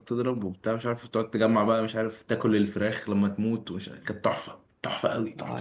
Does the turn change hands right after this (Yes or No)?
Yes